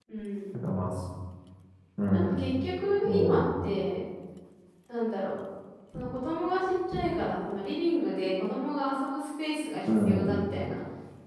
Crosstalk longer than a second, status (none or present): none